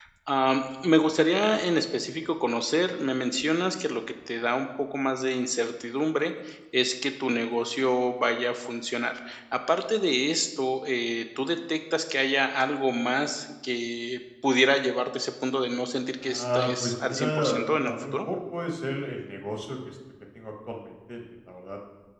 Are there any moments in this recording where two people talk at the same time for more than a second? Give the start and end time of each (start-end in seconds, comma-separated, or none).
16.2-18.2